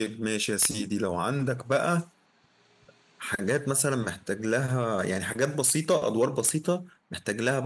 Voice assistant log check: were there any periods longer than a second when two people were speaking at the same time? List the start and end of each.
none

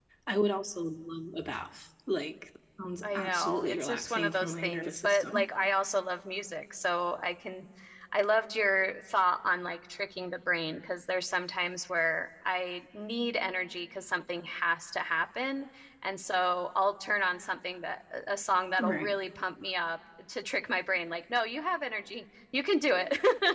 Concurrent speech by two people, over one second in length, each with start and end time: 3.0-5.5

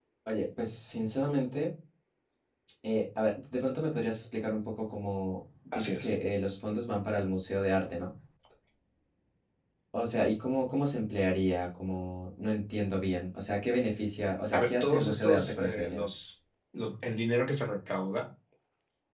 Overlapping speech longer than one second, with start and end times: 14.5-16.1

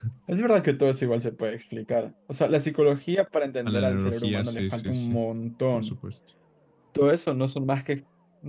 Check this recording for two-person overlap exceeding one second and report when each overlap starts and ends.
3.6-5.1

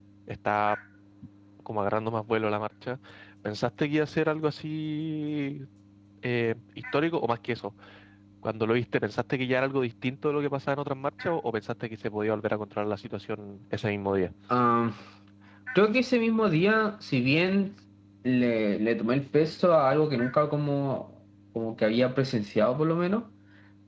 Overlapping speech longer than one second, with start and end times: none

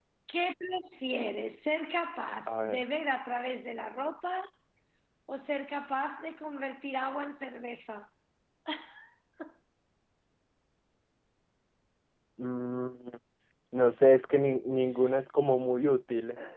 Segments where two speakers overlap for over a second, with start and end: none

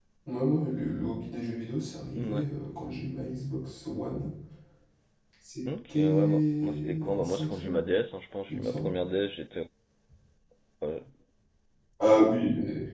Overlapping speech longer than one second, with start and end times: 6.0-7.8

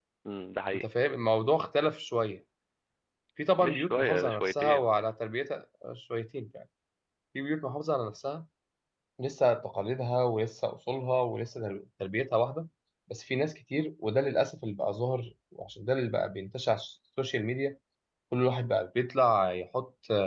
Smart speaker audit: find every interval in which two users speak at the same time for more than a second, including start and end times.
3.6-4.9

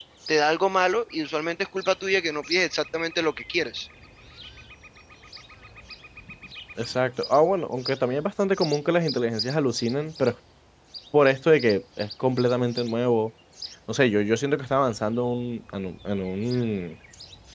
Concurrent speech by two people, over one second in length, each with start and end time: none

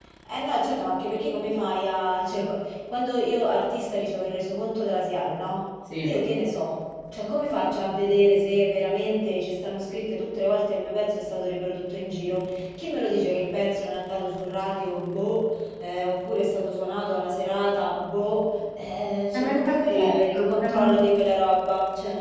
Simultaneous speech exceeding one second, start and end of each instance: 19.3-21.0

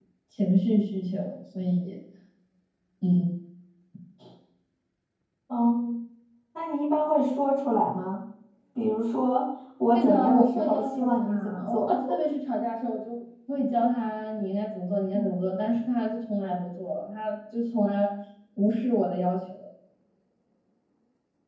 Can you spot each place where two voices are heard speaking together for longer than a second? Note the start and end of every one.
9.9-11.9

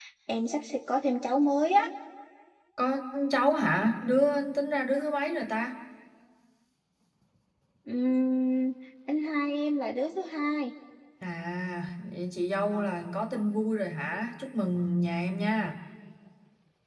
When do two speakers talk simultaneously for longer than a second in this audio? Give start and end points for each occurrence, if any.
none

